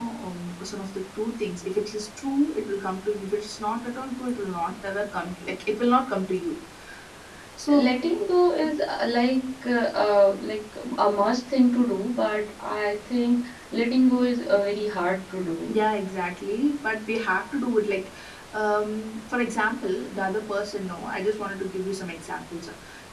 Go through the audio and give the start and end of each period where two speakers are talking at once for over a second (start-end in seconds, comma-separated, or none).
none